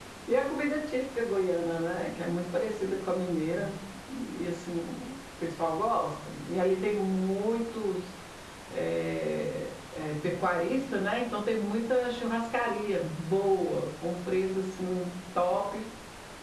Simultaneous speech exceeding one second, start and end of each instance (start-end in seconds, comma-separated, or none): none